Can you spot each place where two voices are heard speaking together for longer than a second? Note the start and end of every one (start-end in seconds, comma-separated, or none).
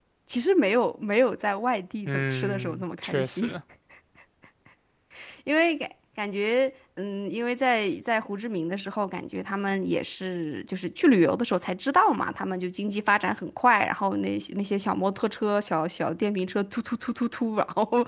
2.0-3.5